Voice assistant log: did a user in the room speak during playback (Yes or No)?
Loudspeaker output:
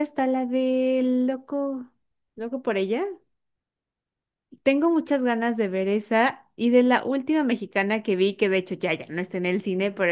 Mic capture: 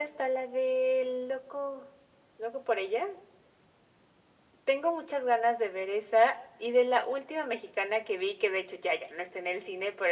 No